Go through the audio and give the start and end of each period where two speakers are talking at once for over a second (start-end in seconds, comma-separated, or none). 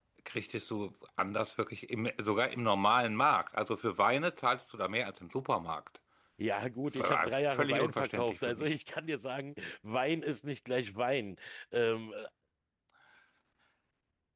7.0-8.7